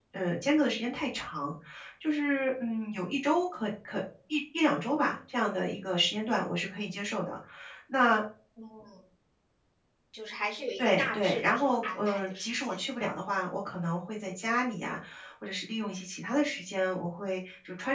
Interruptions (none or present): present